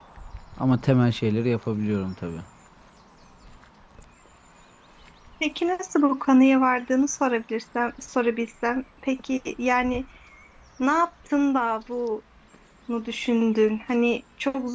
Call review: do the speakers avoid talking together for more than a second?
Yes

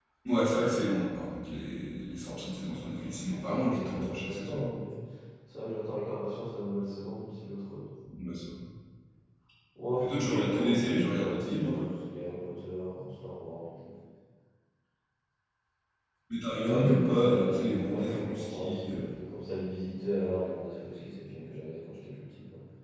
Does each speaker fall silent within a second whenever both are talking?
No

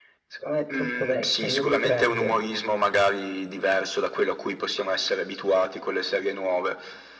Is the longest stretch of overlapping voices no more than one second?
No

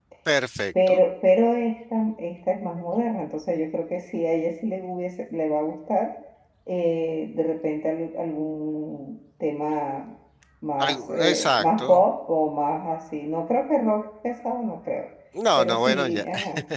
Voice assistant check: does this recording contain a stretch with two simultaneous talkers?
Yes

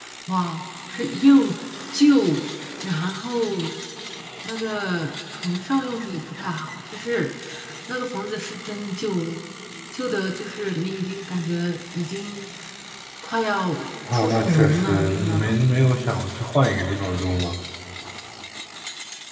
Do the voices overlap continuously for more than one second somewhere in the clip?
Yes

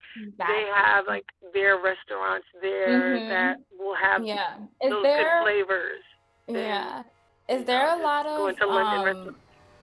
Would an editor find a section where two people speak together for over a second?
Yes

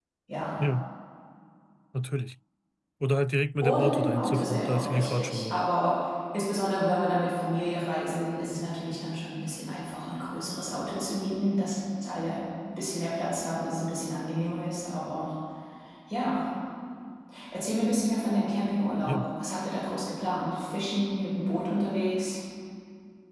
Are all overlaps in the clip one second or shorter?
No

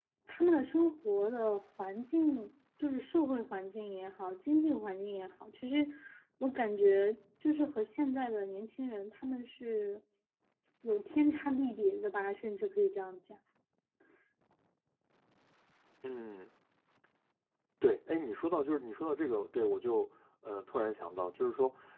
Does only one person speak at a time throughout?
Yes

